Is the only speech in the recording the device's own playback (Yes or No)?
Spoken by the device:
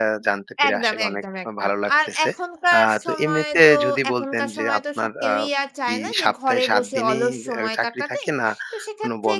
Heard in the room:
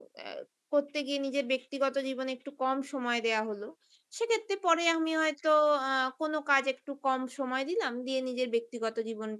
No